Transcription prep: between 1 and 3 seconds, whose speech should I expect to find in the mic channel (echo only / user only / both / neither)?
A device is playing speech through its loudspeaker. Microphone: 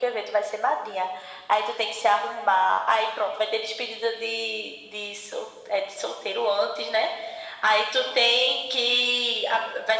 echo only